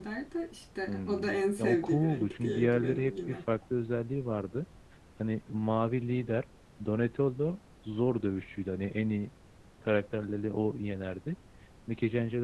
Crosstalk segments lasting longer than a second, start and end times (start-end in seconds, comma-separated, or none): 1.6-3.4